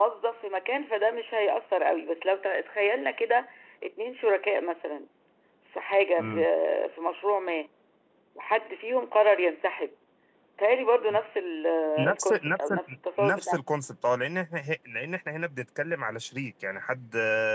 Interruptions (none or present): present